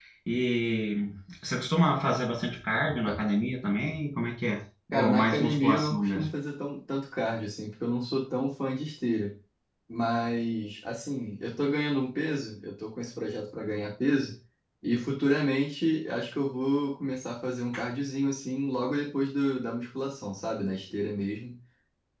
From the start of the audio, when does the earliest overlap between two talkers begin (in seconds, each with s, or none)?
4.9 s